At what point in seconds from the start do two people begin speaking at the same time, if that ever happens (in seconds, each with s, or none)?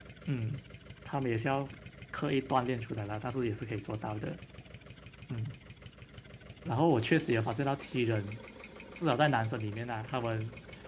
none